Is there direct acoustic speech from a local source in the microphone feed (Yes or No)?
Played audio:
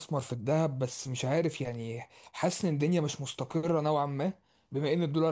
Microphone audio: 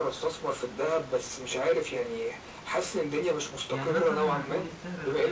Yes